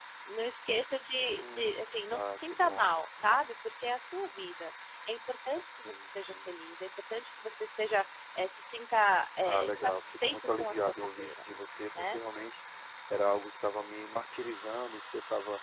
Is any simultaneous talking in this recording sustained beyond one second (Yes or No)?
Yes